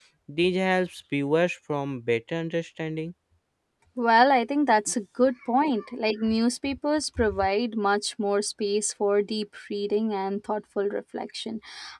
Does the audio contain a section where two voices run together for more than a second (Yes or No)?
No